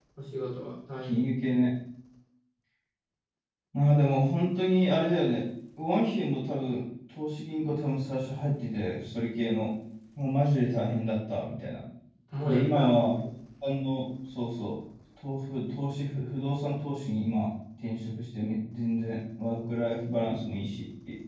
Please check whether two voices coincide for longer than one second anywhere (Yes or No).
No